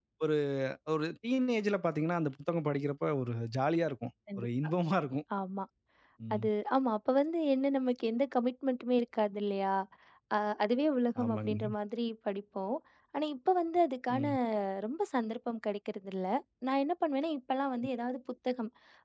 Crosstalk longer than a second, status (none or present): none